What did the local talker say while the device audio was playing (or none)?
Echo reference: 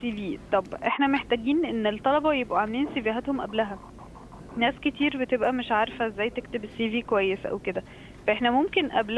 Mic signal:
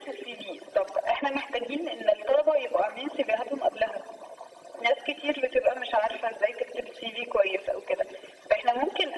none